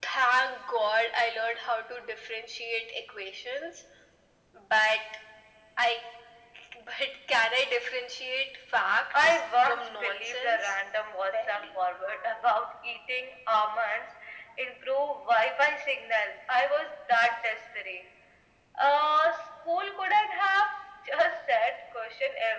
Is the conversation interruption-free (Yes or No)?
No